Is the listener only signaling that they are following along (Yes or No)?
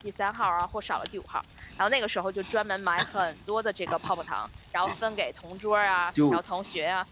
Yes